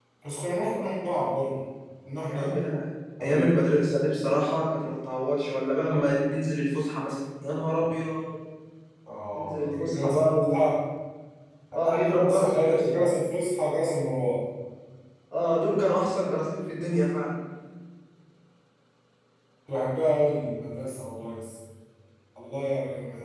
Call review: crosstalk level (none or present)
present